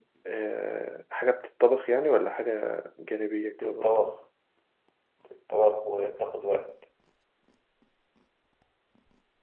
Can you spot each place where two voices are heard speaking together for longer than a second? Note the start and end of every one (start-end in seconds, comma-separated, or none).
none